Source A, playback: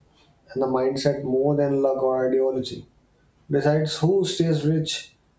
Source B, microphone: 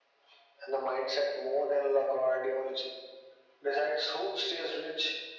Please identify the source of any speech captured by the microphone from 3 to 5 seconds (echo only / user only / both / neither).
echo only